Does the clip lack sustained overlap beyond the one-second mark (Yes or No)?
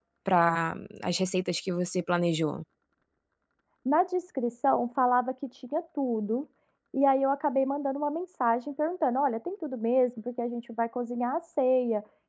Yes